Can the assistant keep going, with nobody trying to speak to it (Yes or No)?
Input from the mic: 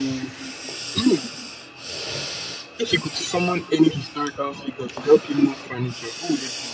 Yes